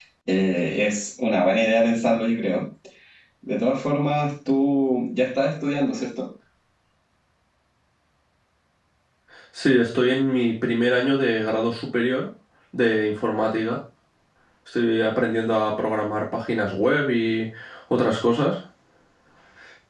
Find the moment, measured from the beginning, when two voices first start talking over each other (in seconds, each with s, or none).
none